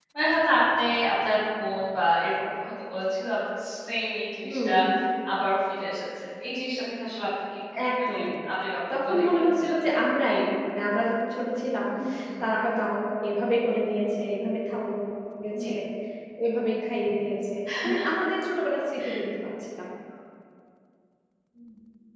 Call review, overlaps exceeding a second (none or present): present